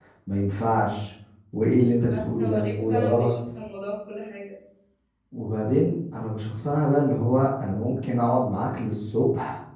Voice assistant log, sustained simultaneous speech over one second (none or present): present